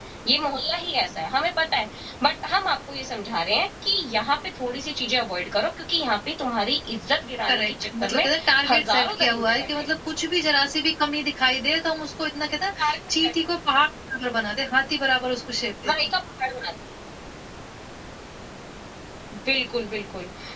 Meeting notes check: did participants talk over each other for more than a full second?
Yes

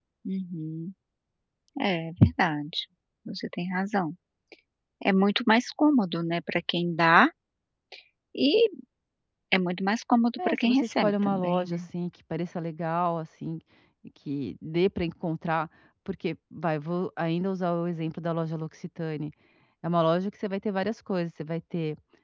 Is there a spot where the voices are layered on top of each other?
Yes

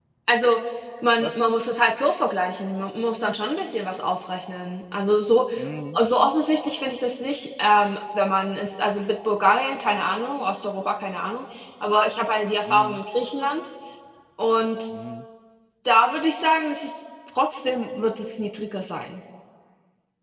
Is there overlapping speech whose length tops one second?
No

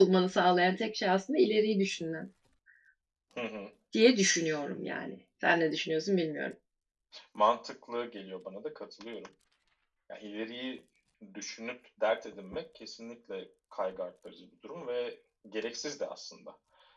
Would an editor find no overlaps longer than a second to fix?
Yes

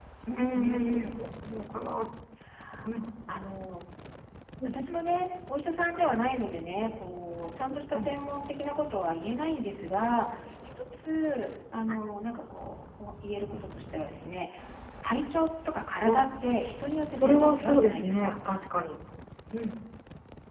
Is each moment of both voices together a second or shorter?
No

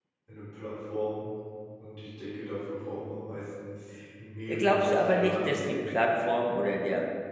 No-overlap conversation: No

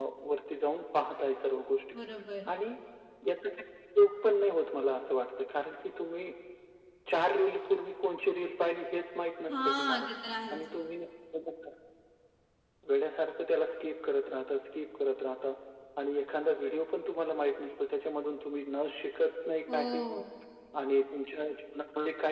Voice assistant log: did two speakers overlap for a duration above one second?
No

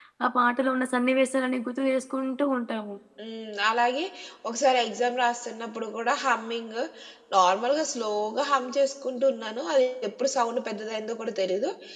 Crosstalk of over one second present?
No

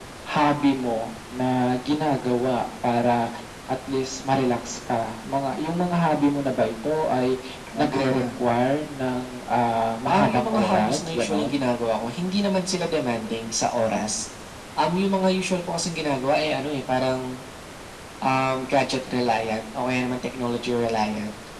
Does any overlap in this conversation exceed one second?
Yes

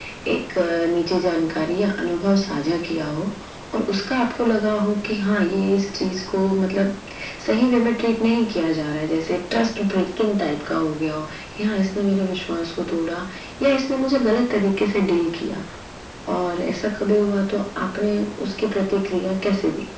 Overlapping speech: No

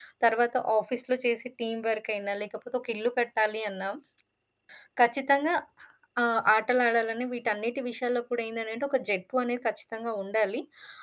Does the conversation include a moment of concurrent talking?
No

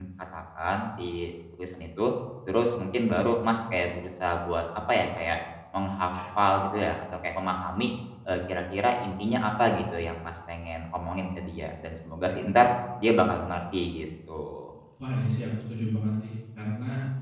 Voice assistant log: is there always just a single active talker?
Yes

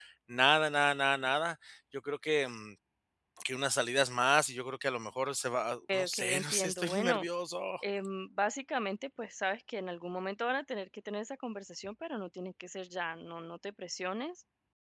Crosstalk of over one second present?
Yes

